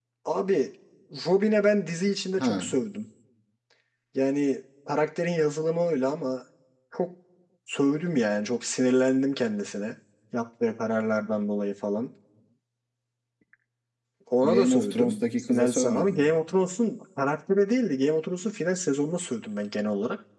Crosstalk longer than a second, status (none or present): present